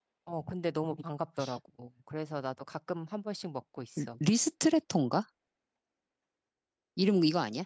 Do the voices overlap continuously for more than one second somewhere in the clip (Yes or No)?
No